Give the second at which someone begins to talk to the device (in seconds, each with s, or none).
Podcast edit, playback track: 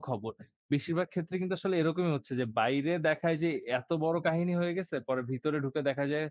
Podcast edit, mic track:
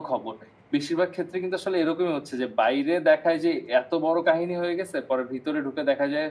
none